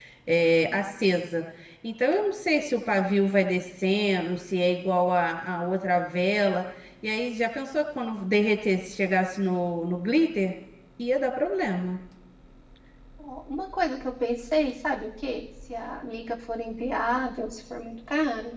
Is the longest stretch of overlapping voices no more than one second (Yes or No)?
Yes